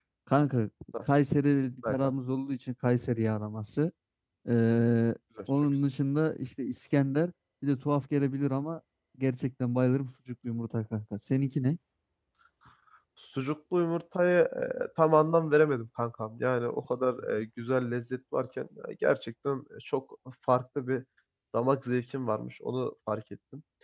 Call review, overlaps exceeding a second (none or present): none